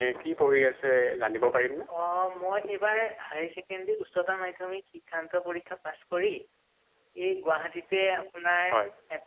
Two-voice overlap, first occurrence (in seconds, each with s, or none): none